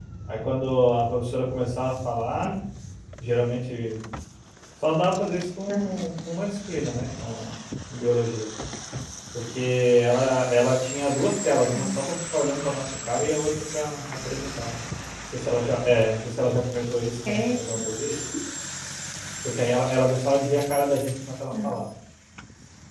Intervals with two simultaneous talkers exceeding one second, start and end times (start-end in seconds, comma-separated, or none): none